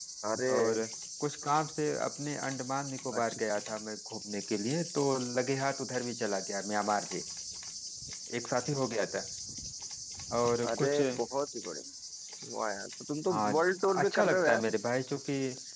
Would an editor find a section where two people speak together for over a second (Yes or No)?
Yes